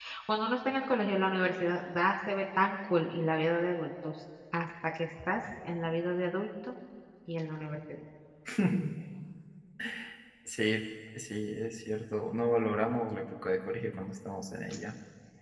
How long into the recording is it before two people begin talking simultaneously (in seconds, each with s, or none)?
none